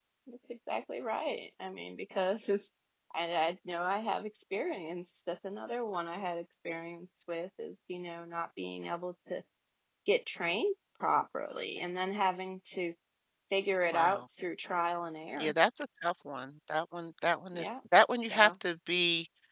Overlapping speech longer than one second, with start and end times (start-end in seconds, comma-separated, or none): none